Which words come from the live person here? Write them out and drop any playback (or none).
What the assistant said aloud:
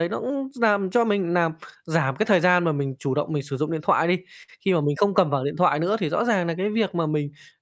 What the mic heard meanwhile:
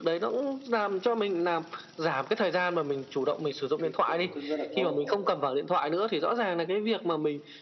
cái cuộn vô thức rất là tốt.